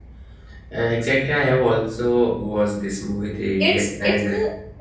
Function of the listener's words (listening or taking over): taking over